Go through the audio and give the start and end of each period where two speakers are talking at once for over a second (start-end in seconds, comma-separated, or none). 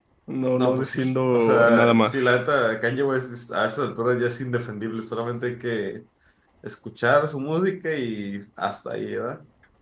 0.6-2.4